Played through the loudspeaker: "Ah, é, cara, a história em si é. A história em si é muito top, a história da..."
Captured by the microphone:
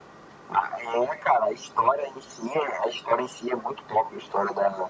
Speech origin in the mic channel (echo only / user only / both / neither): echo only